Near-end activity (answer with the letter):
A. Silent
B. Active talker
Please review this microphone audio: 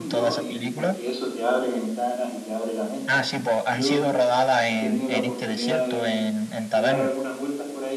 B